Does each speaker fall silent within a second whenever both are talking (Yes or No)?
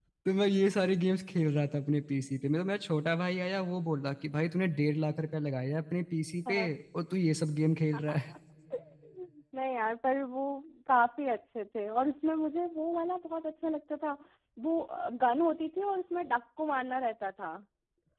Yes